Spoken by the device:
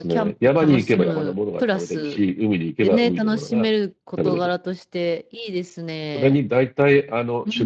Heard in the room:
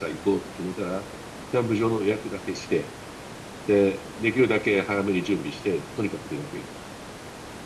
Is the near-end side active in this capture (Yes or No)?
Yes